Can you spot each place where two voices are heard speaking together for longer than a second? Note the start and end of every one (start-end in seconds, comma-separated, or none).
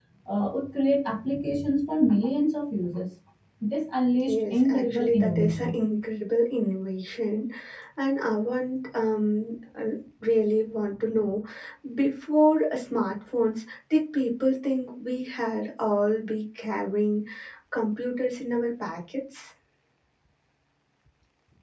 4.3-5.8